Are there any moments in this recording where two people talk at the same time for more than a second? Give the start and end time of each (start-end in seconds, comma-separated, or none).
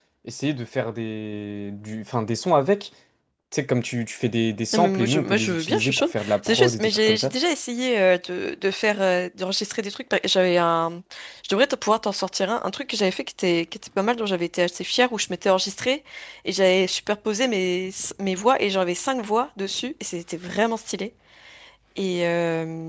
4.7-7.3